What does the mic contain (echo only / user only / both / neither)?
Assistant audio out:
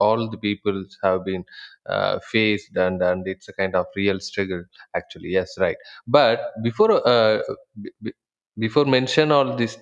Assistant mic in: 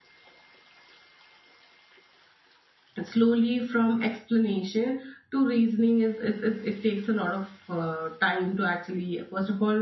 user only